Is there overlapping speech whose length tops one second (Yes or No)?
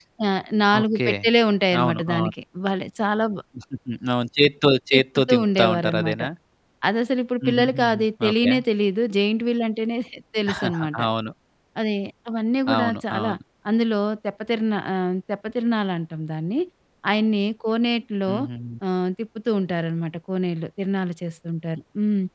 Yes